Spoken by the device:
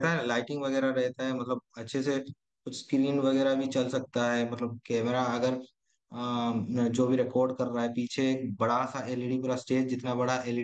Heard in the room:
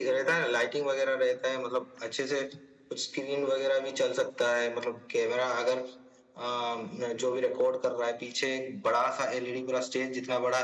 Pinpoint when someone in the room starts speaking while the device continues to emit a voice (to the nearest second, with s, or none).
none